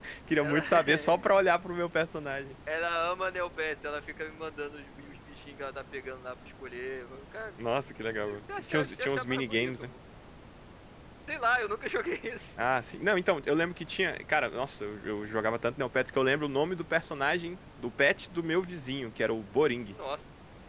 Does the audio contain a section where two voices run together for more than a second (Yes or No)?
Yes